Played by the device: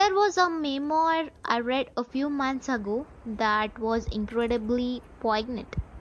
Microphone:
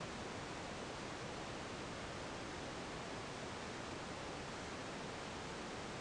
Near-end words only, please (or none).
none